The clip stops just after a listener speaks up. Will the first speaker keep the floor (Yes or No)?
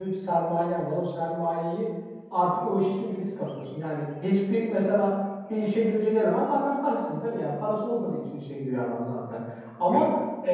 Yes